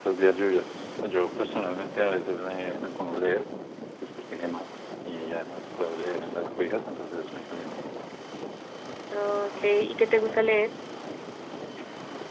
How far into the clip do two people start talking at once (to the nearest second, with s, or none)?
none